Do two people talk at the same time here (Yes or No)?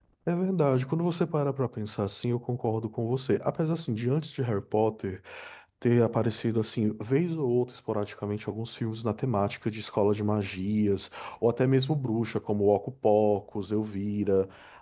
No